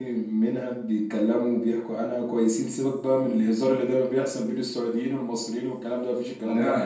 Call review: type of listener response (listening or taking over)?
listening